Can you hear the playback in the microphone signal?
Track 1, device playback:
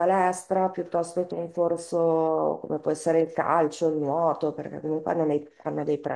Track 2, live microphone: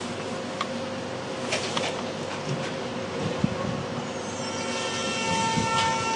No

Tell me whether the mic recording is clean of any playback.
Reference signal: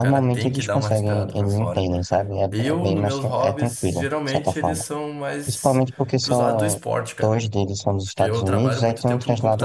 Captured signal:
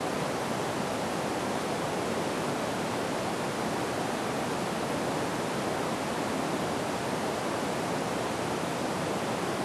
Yes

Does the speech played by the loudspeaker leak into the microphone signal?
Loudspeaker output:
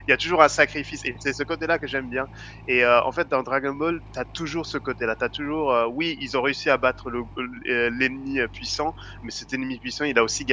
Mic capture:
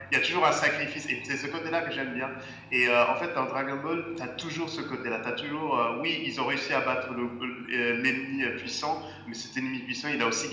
Yes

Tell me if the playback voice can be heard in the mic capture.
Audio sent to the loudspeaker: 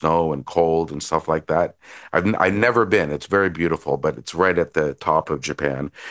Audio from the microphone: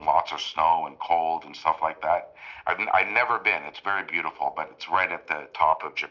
Yes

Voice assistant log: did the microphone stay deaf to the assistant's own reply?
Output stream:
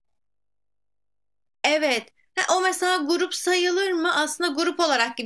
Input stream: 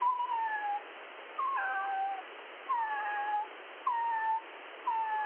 Yes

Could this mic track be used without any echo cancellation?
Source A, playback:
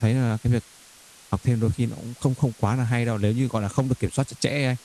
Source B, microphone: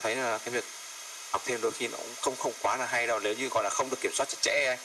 No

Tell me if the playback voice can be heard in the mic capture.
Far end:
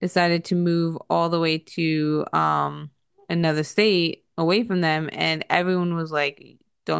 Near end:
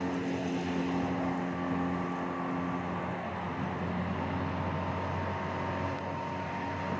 No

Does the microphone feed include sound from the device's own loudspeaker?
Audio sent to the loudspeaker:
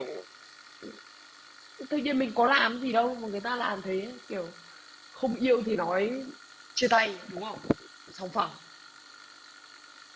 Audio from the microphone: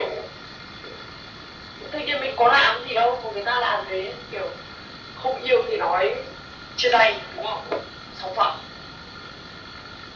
Yes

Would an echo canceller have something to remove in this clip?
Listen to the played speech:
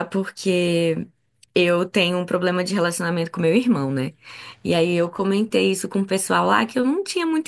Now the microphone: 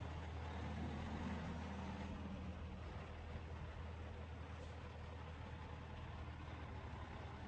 No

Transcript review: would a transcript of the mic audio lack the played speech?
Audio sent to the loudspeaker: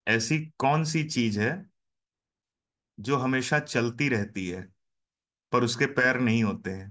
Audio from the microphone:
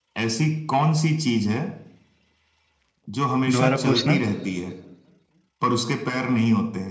No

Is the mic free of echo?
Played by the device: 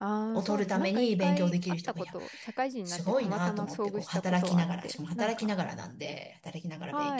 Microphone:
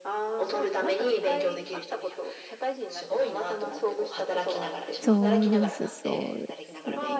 No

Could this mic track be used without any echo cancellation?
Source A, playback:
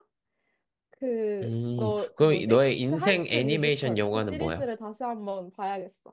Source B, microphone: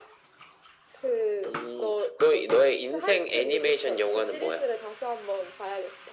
No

